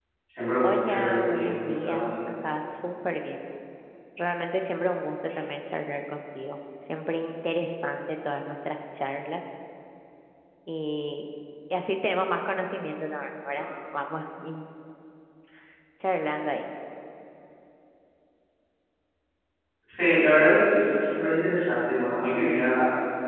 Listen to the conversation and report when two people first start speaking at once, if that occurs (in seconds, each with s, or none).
0.6 s